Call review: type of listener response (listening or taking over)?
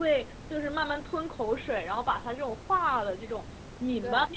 listening